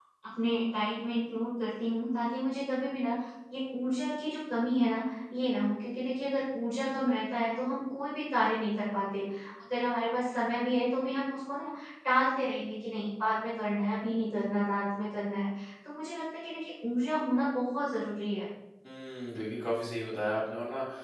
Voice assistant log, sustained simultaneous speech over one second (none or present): none